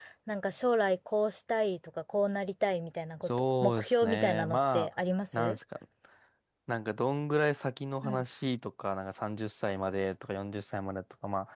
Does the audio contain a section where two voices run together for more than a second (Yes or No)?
Yes